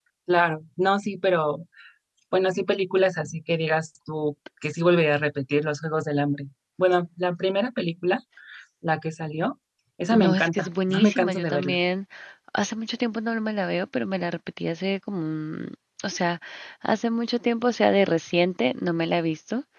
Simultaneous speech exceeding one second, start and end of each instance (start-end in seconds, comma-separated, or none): 10.2-11.8